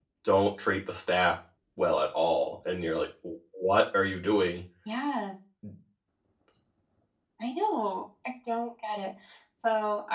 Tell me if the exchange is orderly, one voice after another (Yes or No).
Yes